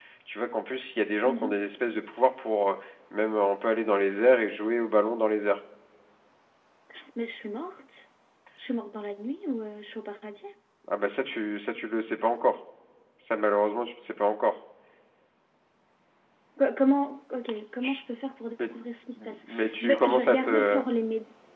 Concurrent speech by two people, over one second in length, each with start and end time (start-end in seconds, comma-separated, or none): 19.2-20.8